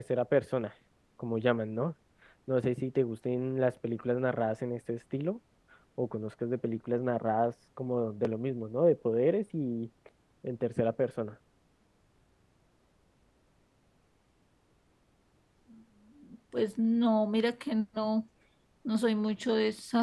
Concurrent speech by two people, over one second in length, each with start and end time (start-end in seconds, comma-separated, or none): none